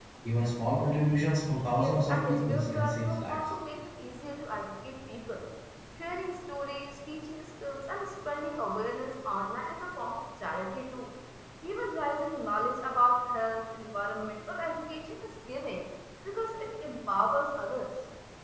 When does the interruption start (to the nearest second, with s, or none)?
2 s